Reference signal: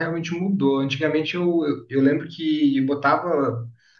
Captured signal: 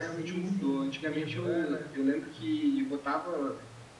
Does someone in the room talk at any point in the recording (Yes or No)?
Yes